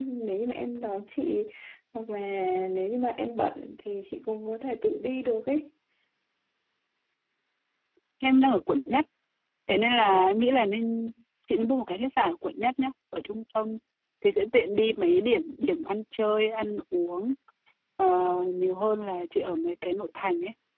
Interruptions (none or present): none